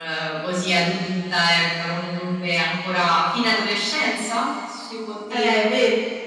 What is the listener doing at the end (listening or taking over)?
taking over